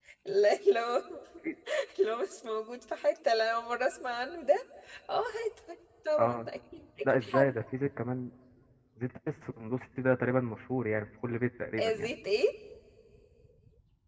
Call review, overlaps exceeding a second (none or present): none